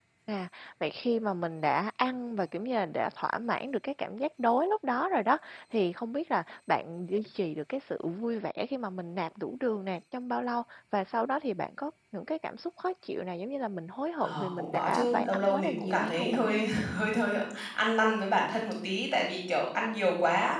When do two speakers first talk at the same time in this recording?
14 s

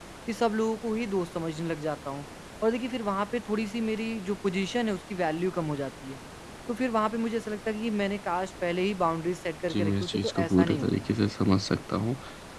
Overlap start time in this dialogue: 10 s

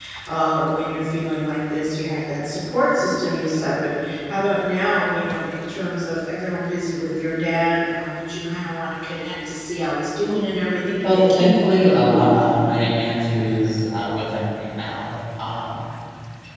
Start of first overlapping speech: 11 s

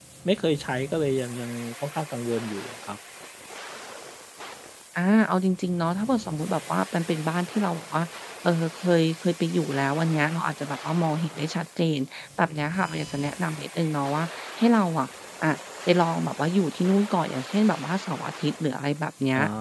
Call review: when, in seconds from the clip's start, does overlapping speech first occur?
none

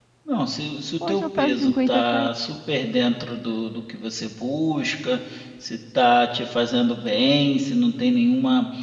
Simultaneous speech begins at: 1 s

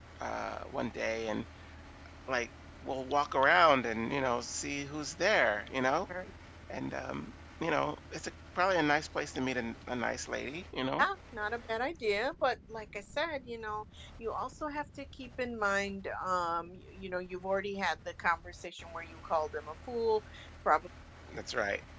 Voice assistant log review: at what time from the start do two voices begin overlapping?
none

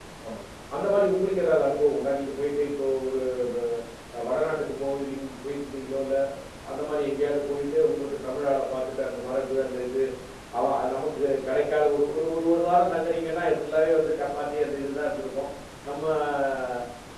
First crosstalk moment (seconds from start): none

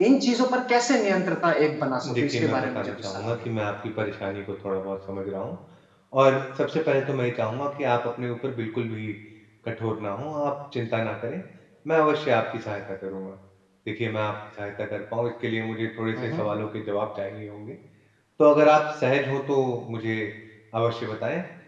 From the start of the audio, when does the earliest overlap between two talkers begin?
2 s

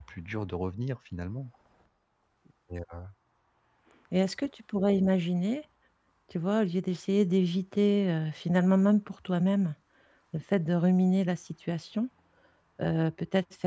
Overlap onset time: none

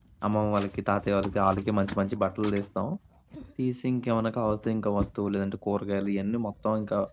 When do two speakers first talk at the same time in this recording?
none

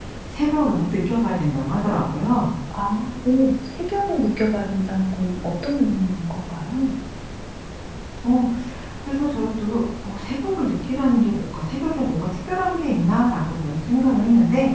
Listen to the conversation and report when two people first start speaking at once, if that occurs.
none

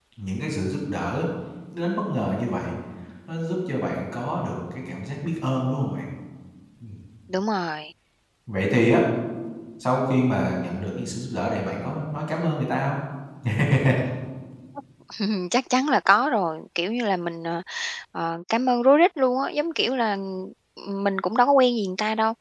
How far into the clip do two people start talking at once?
none

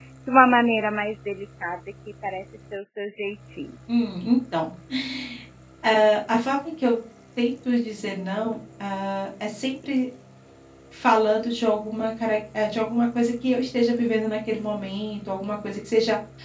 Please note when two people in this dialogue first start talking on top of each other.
none

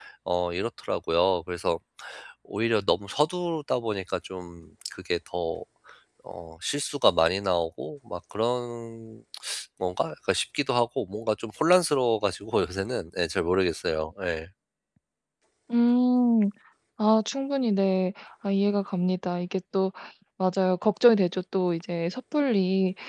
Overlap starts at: none

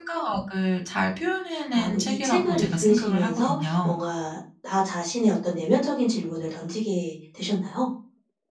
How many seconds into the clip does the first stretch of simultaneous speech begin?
2 s

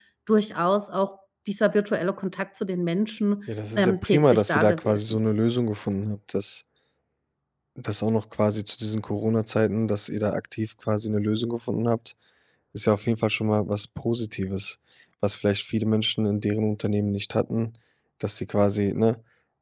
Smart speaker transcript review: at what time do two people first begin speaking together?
4 s

